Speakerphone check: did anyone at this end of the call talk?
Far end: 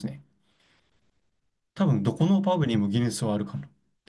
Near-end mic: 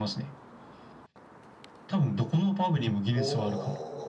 Yes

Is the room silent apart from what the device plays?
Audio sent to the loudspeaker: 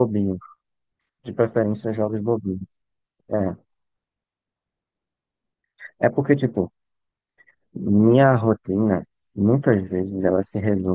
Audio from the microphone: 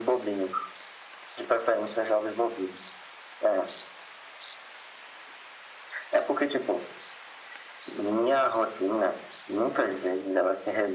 Yes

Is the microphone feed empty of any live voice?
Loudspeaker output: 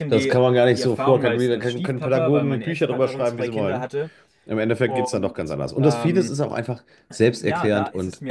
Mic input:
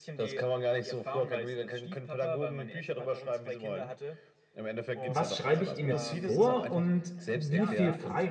No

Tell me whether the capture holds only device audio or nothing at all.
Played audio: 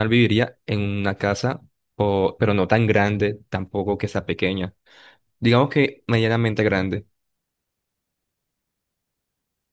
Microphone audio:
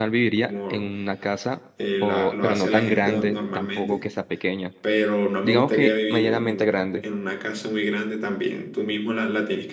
No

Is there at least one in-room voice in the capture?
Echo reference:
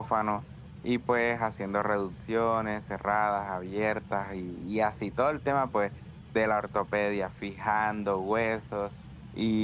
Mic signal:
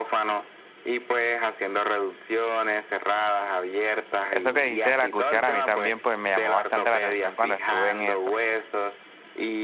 Yes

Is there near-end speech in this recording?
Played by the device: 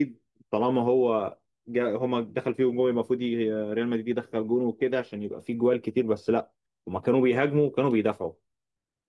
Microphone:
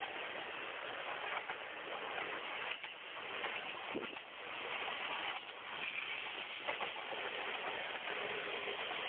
No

